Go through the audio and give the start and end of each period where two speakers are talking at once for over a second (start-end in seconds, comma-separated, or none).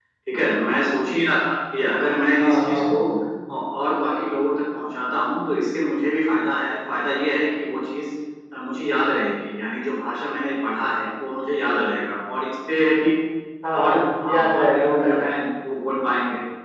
13.8-15.3